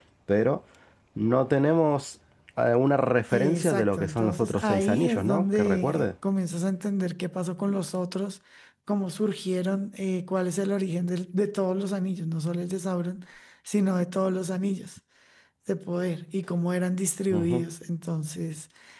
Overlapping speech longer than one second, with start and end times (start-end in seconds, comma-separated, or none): 3.3-6.1